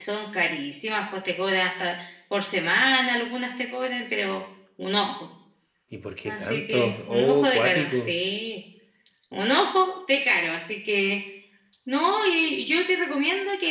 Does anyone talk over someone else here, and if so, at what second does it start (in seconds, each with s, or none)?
6.2 s